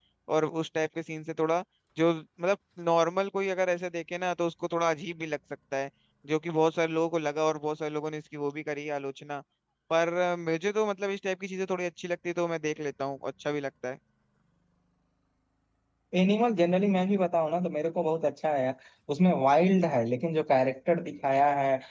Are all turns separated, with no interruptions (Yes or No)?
Yes